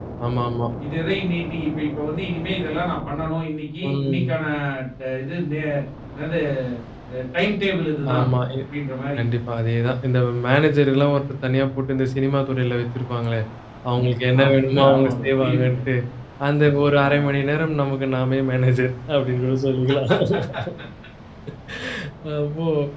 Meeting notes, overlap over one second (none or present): present